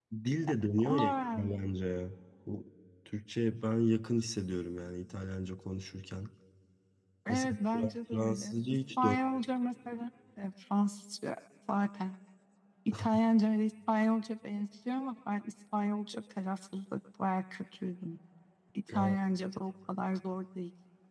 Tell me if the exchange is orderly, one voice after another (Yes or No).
No